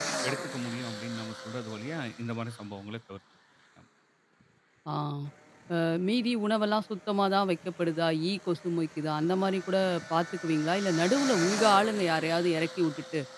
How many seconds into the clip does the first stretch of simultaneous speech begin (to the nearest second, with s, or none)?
none